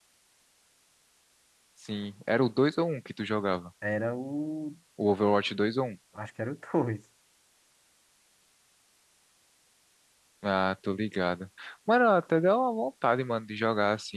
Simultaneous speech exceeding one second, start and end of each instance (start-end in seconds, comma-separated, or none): none